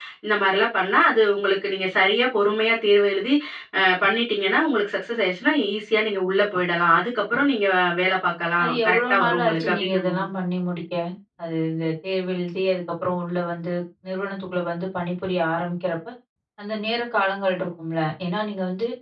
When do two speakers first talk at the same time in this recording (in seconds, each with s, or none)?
8.6 s